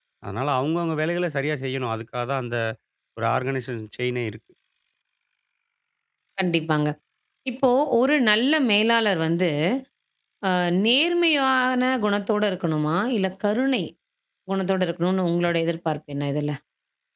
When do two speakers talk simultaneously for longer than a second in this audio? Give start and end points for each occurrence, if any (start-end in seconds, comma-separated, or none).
none